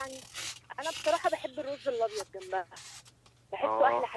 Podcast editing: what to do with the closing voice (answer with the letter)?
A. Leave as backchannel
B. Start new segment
B